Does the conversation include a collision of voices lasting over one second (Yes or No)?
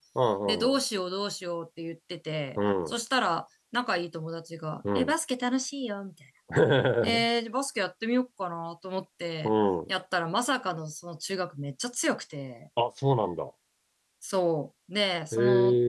No